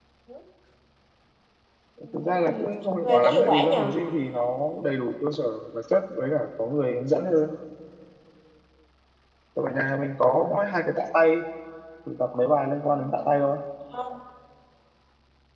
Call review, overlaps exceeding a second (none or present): present